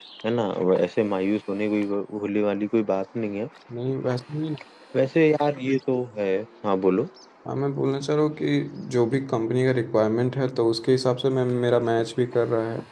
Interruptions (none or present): none